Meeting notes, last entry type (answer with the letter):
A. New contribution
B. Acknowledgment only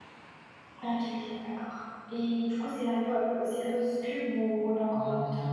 A